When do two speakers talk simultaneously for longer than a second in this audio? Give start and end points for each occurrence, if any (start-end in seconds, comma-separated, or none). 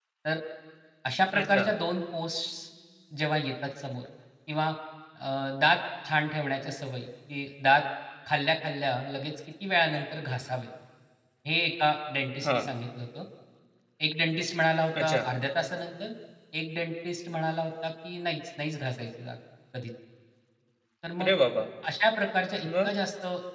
none